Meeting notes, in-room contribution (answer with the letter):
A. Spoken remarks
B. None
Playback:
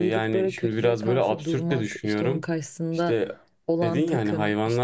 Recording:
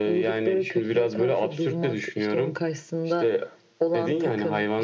B